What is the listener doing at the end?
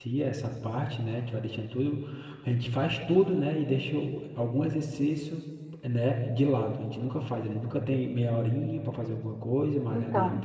listening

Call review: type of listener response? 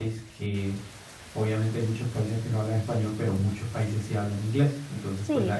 listening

